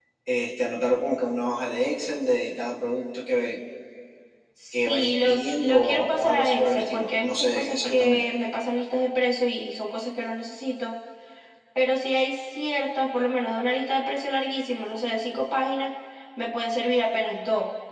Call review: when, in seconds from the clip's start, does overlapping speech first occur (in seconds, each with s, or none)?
4.8 s